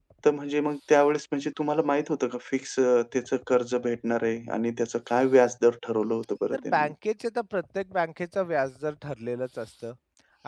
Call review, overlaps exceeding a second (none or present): none